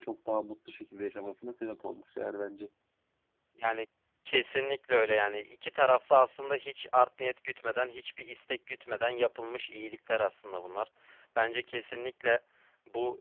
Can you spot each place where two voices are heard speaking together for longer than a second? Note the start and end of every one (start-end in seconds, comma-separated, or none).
none